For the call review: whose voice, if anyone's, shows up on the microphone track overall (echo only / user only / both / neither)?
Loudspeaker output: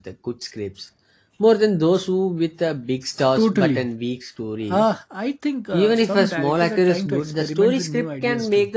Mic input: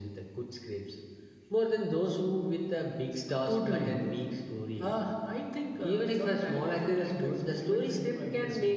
echo only